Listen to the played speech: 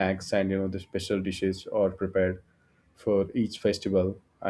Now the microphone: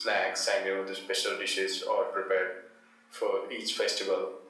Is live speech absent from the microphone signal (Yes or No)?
Yes